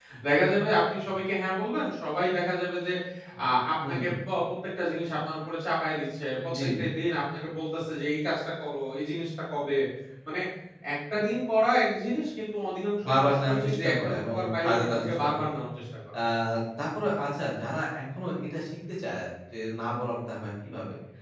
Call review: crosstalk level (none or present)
present